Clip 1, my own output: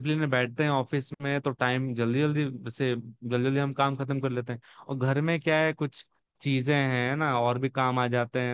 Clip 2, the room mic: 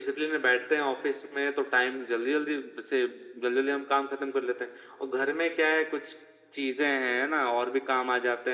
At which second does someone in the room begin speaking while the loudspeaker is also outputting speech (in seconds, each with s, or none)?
none